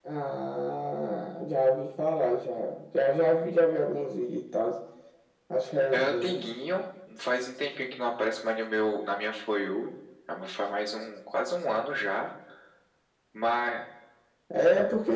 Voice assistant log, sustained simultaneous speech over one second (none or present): none